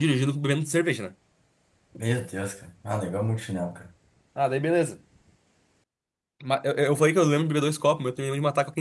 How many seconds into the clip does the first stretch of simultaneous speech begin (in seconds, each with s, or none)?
none